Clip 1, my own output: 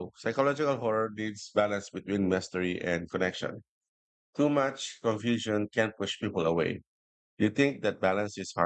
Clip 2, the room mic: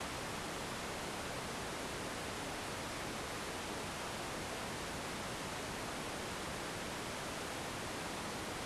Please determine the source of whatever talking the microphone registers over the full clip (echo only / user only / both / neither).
neither